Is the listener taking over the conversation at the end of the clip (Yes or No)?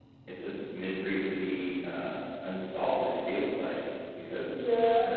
Yes